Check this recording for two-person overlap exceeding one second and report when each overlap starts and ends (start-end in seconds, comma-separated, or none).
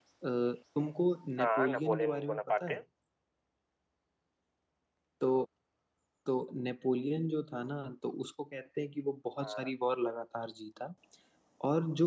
1.4-2.8